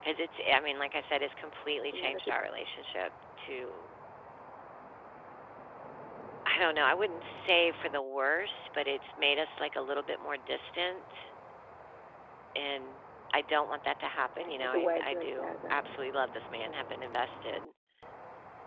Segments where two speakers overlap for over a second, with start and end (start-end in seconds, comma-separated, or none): 14.4-15.8